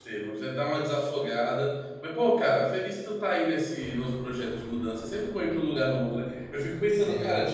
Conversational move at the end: listening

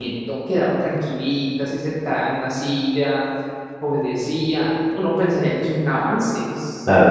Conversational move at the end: taking over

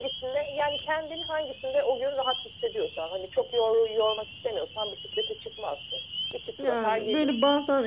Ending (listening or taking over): taking over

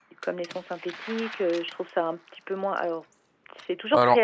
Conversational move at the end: listening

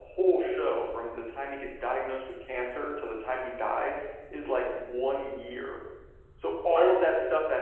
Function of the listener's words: listening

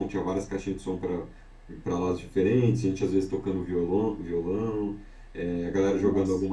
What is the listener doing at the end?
listening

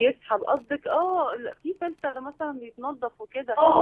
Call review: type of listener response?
taking over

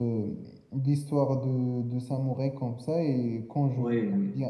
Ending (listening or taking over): listening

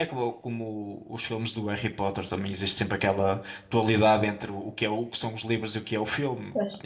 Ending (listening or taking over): taking over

